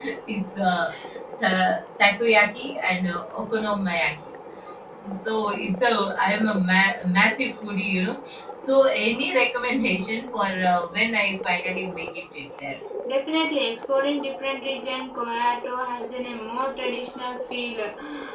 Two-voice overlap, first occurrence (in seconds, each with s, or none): none